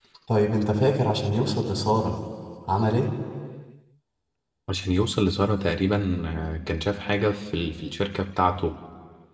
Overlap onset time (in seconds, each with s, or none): none